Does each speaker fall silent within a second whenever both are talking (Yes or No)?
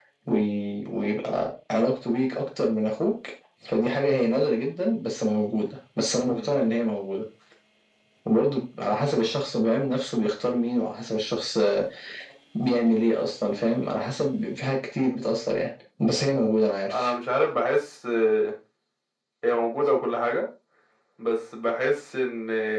Yes